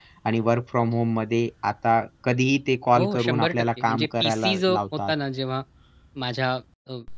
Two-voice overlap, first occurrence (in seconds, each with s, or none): 3.0 s